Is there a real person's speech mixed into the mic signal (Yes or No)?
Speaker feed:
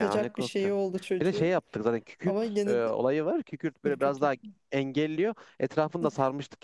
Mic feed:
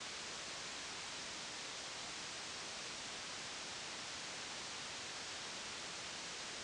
No